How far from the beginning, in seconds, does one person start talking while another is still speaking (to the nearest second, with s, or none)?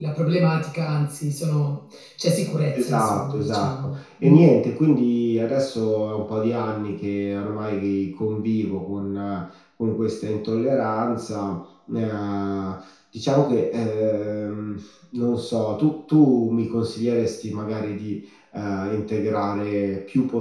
3 s